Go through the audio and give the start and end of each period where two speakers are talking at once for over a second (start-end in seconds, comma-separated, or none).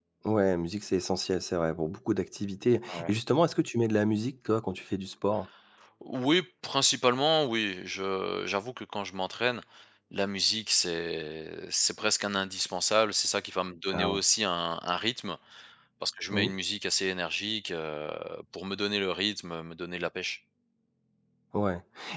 none